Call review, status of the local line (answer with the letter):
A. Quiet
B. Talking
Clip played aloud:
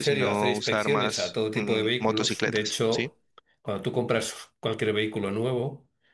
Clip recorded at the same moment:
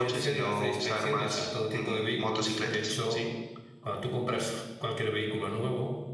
A